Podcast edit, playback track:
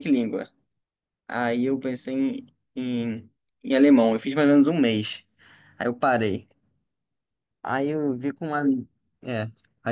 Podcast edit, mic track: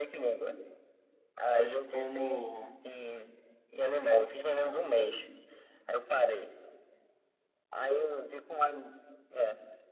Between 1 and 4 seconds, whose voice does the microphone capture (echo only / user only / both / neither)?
both